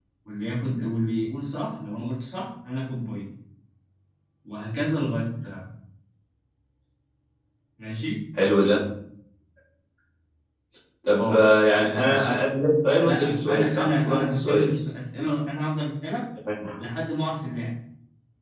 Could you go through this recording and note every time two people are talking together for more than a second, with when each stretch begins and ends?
13.0-14.7

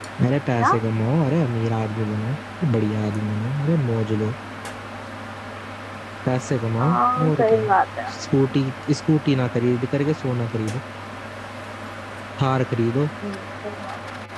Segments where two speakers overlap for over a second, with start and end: none

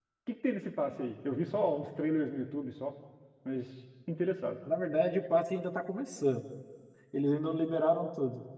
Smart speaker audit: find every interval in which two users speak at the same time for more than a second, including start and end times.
none

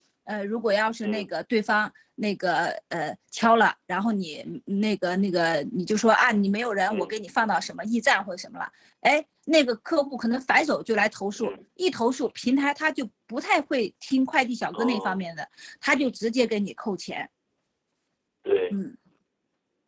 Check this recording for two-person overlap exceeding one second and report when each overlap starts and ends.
none

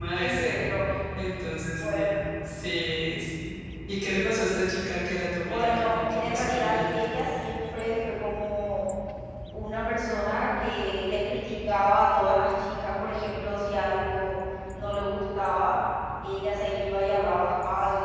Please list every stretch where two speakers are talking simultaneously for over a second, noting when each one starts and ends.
5.5-6.9

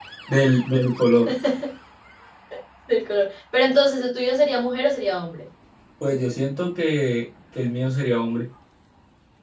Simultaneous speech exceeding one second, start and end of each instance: none

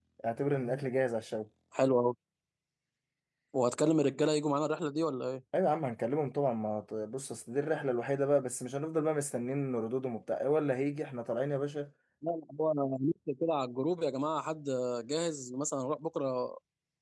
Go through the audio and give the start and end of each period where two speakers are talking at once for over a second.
none

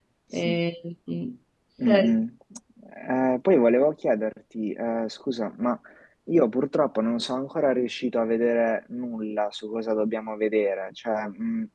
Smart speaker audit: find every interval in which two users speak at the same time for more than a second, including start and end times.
none

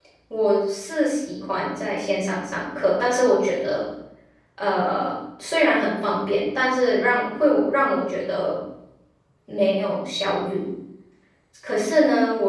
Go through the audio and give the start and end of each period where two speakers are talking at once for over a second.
none

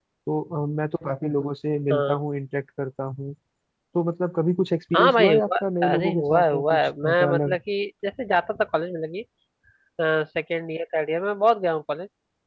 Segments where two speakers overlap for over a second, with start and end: 5.0-7.6

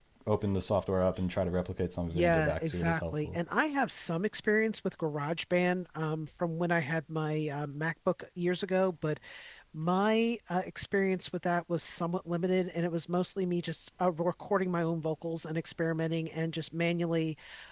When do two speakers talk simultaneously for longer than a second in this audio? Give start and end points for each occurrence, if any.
2.1-3.4

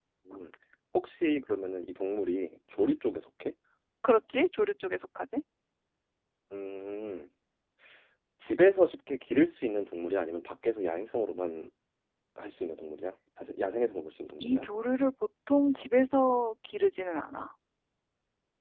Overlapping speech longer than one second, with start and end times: none

